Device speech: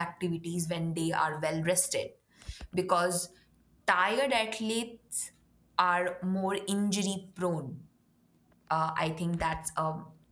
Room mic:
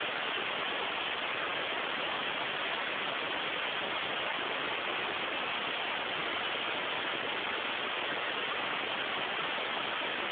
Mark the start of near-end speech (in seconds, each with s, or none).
none